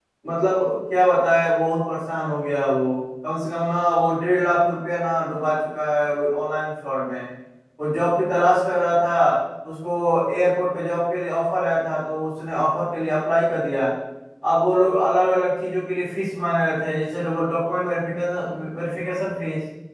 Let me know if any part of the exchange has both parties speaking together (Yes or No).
No